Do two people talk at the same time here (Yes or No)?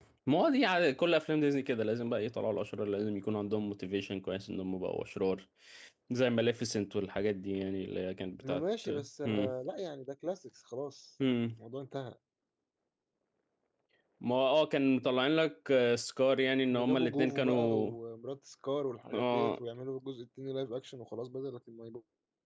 Yes